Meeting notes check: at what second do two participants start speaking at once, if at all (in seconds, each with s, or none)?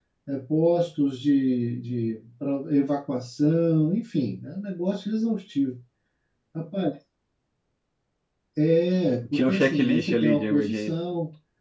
9.3 s